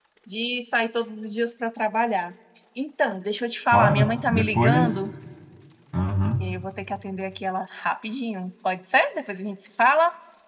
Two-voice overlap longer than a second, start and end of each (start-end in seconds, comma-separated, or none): 3.7-5.0